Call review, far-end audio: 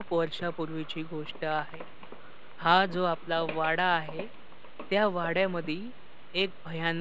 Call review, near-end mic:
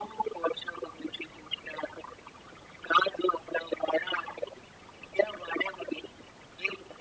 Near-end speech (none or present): none